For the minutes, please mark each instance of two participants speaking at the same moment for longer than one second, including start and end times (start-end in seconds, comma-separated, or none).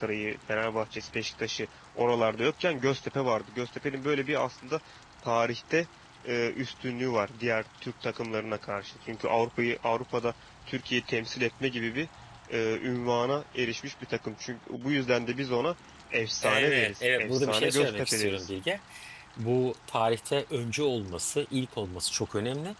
16.4-18.5